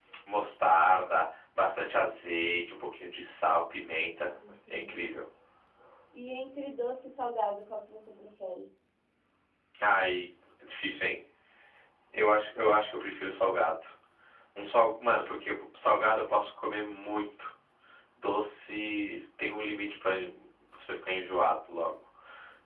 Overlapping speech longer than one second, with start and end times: none

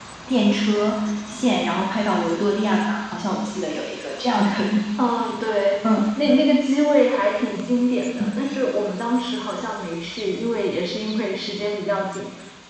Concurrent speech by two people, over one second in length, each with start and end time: none

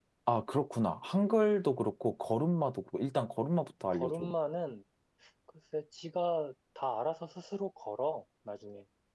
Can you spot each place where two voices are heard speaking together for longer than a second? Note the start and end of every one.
none

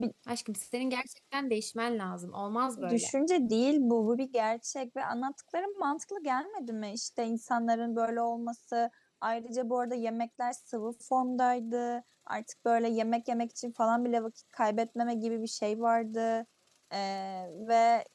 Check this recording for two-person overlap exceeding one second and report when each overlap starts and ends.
none

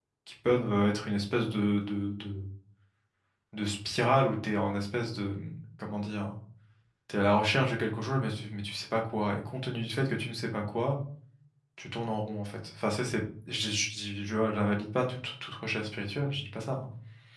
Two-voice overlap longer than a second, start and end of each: none

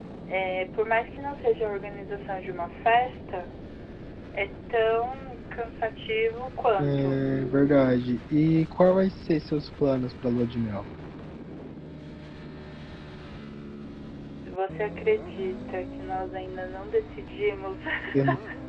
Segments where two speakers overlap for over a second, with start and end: none

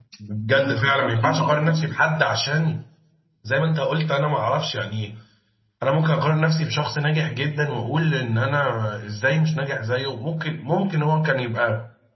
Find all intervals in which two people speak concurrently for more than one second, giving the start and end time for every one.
0.5-1.9

